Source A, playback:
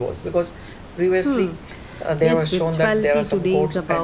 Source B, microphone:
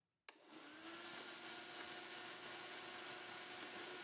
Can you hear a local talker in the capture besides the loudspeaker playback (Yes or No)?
No